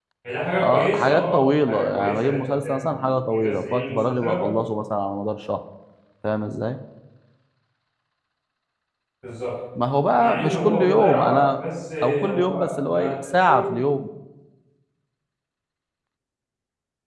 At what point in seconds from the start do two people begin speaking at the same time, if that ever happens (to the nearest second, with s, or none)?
1 s